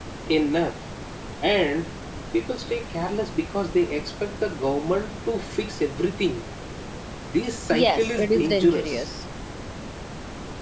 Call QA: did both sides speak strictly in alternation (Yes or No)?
No